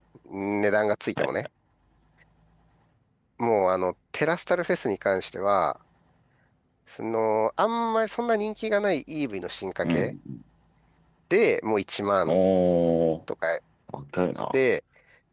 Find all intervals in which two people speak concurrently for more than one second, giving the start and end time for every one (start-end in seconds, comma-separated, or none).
none